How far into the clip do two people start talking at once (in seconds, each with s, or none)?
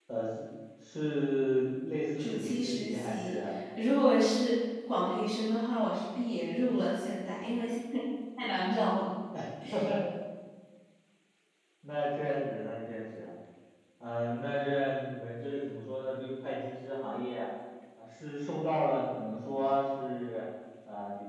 2.2 s